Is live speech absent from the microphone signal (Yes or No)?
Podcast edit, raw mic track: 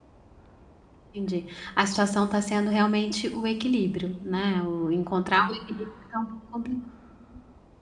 No